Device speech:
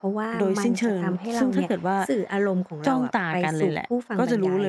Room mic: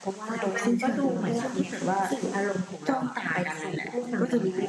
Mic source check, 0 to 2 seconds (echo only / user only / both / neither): both